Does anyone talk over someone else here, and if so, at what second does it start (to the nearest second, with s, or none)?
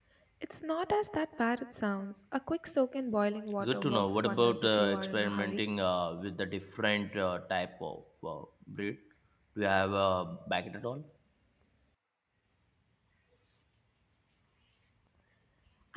4 s